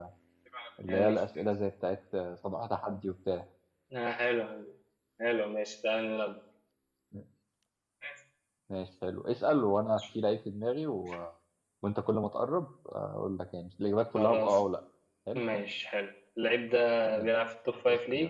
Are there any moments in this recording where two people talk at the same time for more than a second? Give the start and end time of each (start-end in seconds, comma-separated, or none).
none